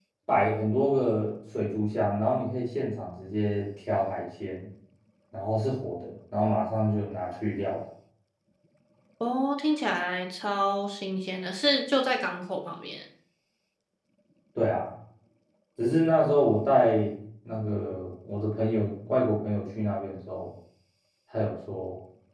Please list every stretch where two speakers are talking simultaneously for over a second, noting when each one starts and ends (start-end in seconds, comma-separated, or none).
none